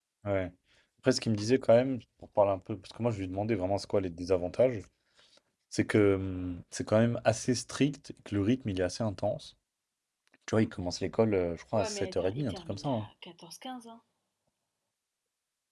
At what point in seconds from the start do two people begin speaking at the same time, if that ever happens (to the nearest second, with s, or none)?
12 s